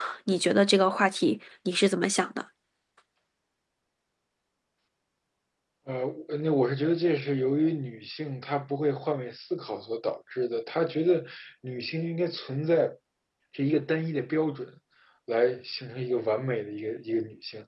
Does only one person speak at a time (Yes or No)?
Yes